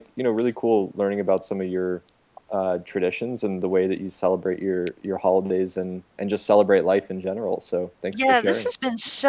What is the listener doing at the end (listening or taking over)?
taking over